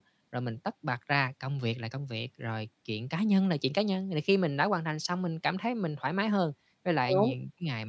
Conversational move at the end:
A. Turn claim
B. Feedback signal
B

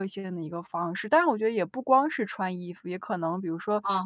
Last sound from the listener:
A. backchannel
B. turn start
A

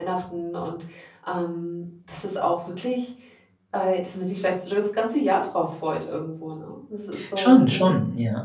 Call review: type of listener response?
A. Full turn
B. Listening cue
A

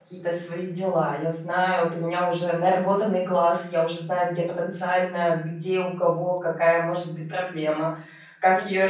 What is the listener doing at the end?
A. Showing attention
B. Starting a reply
B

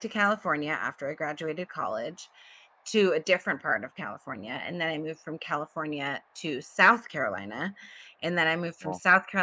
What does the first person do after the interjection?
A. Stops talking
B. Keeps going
B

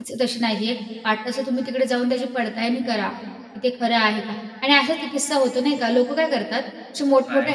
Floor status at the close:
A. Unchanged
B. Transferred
A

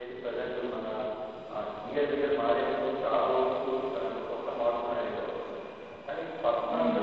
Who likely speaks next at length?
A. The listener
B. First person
B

